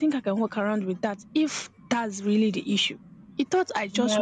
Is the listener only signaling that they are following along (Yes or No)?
Yes